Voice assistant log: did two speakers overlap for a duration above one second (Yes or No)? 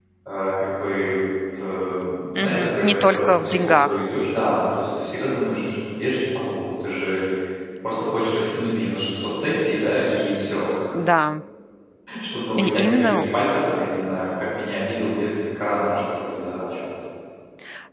Yes